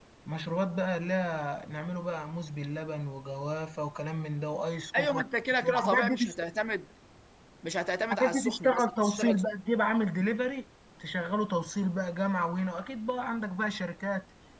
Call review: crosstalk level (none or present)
present